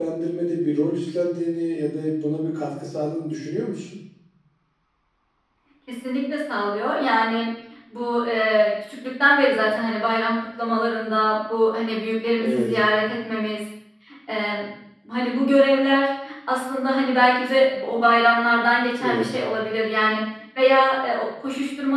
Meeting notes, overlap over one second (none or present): none